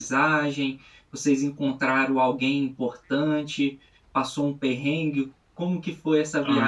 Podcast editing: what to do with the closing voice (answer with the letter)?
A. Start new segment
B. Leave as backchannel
A